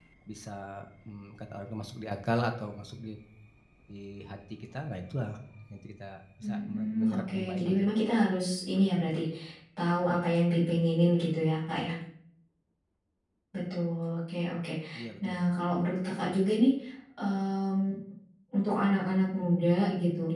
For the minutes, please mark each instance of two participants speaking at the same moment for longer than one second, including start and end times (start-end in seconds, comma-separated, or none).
6.4-7.9